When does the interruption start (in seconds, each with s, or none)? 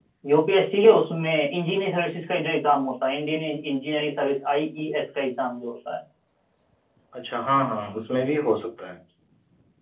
none